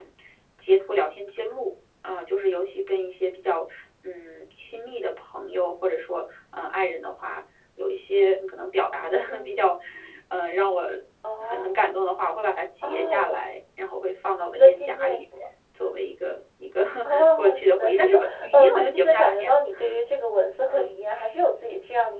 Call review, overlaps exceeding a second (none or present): present